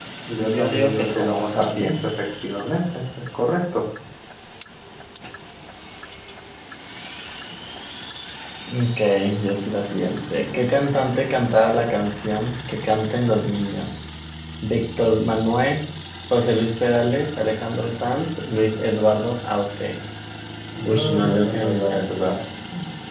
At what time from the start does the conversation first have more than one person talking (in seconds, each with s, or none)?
0.5 s